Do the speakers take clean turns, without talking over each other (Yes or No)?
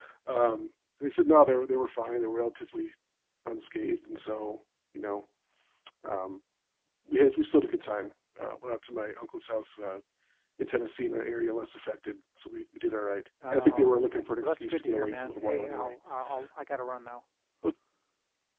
No